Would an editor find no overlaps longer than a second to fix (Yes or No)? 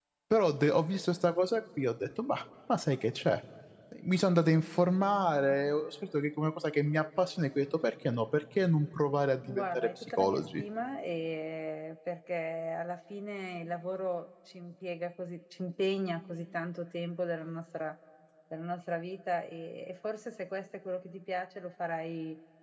No